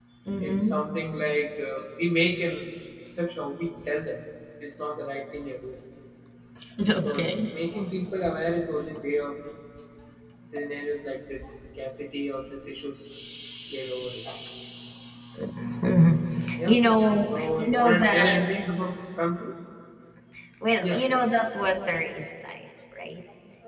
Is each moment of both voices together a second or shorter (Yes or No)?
No